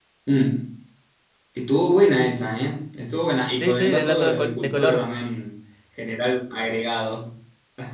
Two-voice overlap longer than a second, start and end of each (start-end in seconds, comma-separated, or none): 3.6-5.0